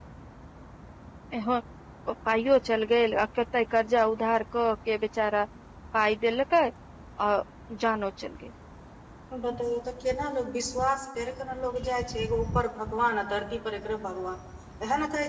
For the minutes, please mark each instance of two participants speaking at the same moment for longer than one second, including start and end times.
none

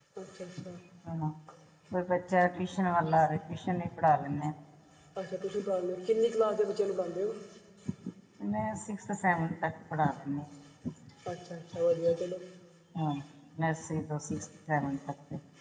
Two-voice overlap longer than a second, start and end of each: none

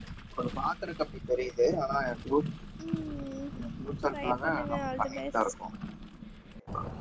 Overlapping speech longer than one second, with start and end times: 4.1-5.5

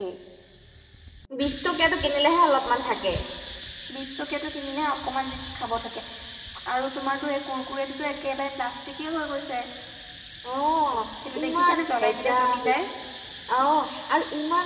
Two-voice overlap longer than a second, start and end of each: 11.4-12.6

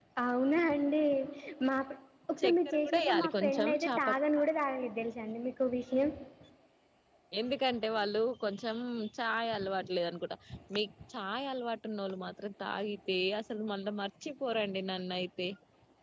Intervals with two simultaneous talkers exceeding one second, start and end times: 2.4-4.1

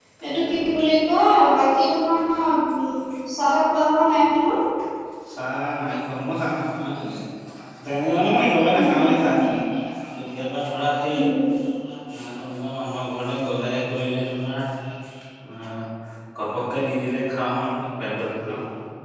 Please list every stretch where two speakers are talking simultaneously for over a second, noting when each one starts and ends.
none

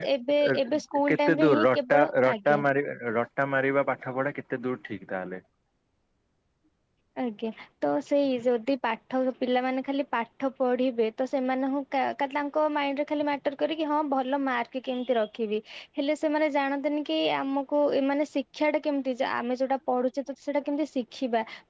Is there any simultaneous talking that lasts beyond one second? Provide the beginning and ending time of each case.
1.1-2.6

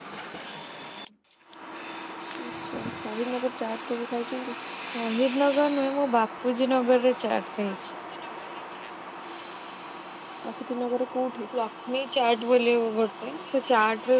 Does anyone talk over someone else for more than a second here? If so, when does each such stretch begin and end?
none

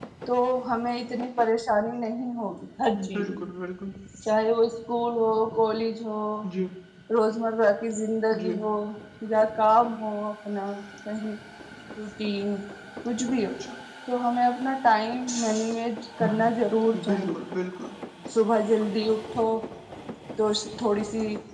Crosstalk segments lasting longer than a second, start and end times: none

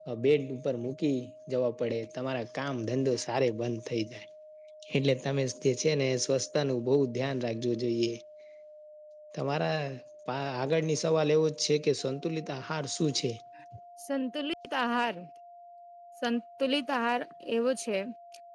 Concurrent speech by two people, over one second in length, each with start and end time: none

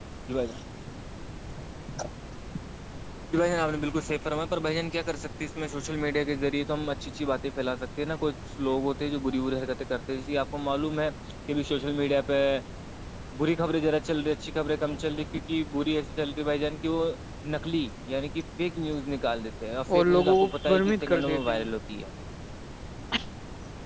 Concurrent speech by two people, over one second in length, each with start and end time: 19.9-21.7

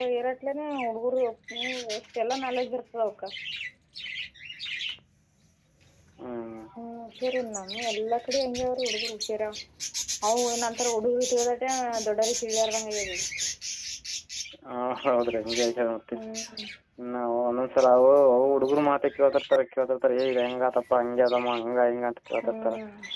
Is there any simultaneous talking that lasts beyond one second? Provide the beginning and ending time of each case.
none

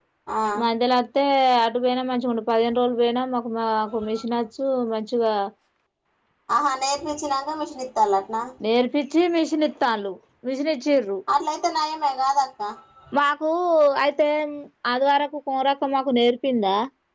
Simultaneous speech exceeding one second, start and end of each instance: none

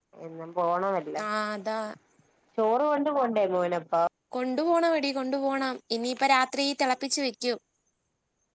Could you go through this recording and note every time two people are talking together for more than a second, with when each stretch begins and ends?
none

